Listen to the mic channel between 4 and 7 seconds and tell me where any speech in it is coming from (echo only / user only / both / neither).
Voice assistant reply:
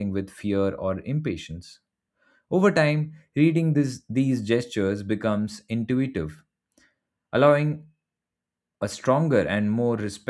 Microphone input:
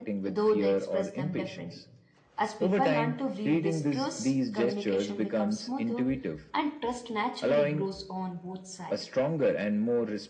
both